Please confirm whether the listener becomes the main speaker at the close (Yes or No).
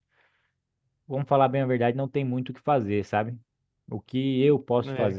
No